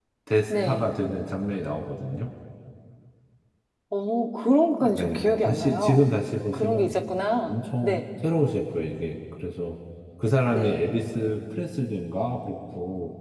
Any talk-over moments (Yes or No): Yes